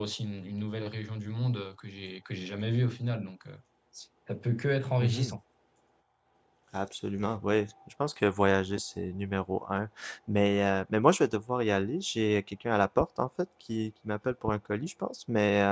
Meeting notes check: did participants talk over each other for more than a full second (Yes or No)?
No